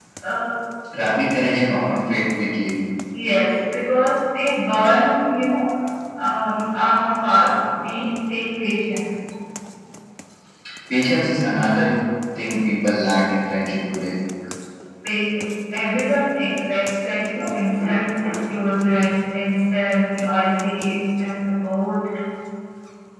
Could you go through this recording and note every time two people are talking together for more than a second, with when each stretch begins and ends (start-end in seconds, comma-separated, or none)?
none